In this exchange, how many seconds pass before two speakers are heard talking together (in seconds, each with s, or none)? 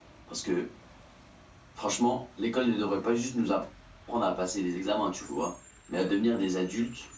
none